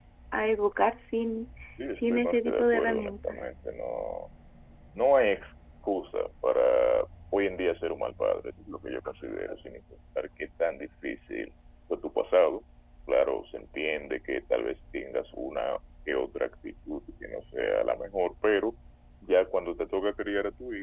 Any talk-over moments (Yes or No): Yes